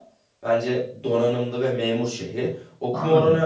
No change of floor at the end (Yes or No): Yes